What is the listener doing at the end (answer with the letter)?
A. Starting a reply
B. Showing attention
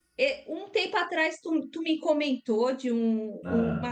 B